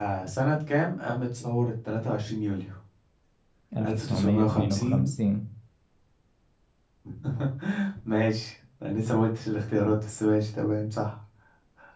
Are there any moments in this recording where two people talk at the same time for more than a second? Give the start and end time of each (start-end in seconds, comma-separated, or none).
3.9-5.1